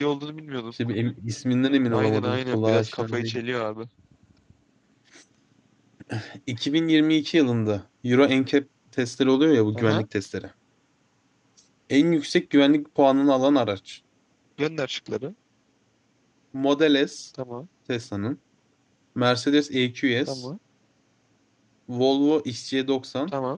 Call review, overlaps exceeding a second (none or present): present